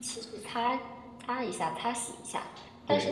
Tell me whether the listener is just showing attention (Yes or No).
Yes